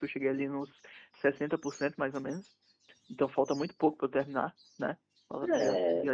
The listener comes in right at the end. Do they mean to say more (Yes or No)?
Yes